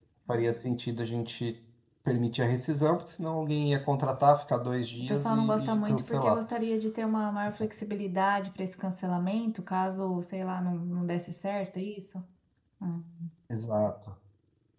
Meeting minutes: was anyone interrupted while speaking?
Yes, from 4.9 s

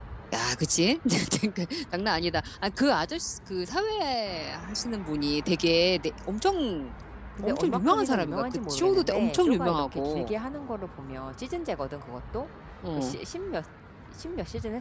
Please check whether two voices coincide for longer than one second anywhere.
Yes, from 7.4 s

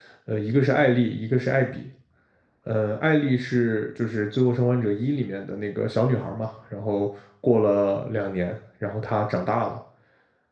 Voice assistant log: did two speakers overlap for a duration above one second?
No

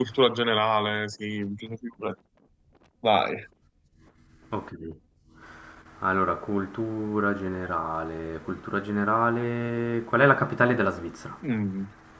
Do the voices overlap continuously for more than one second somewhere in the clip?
No

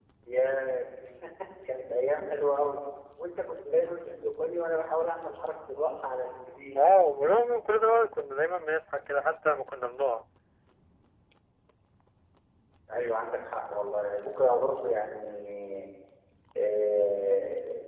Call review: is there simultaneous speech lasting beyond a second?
No

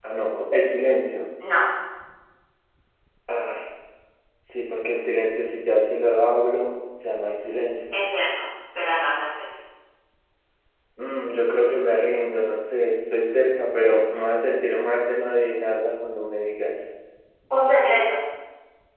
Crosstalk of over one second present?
No

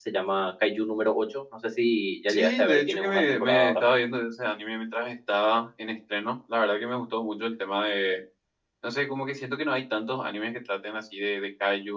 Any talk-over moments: Yes, from 2.3 s

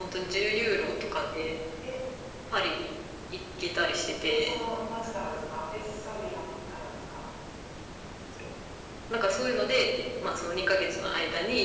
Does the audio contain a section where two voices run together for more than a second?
No

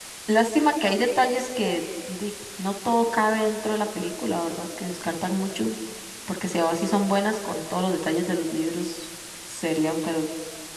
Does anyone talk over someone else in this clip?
No

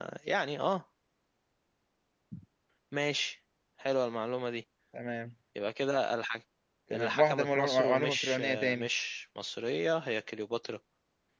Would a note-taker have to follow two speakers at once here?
Yes, from 6.9 s

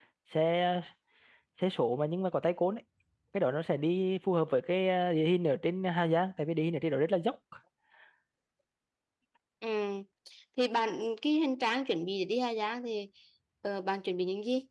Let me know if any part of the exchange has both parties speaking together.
No

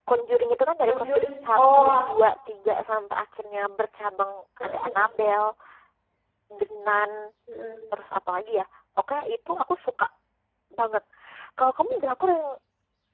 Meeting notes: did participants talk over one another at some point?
Yes, from 0.9 s

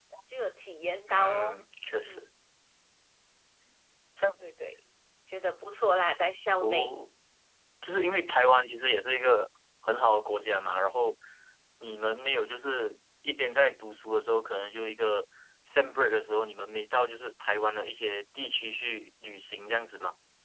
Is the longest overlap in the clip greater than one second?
No

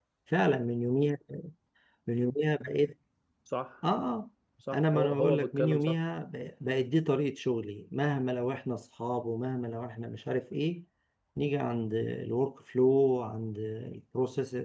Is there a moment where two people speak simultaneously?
Yes, from 4.7 s

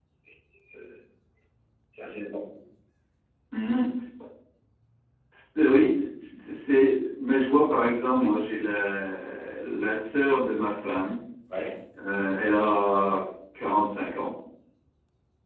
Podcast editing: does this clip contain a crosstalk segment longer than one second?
No

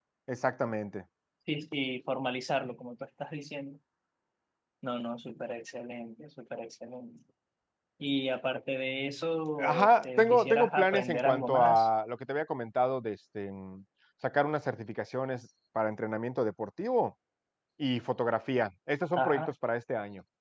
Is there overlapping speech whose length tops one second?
Yes, from 9.6 s

